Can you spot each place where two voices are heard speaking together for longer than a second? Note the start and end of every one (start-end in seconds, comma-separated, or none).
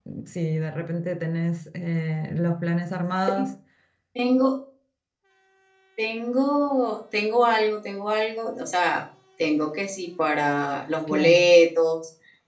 none